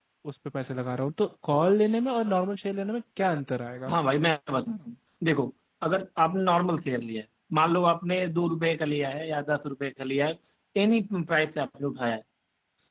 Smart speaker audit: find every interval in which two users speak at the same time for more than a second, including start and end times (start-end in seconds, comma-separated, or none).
none